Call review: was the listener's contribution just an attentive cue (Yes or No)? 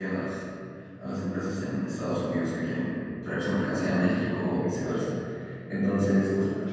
Yes